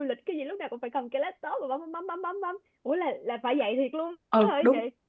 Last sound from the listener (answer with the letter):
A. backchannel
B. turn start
B